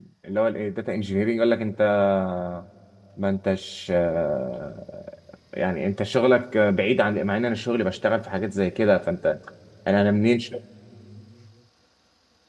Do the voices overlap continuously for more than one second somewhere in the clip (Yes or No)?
No